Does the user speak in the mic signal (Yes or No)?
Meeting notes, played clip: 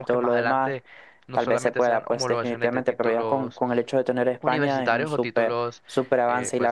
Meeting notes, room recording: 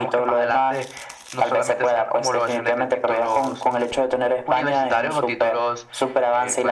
No